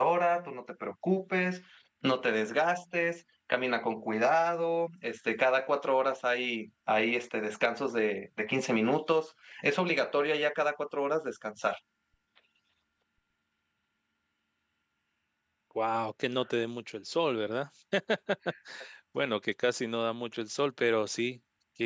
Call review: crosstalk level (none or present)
none